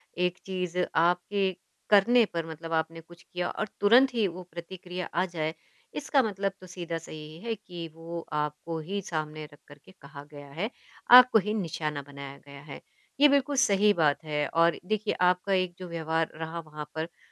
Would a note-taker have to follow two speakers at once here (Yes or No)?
No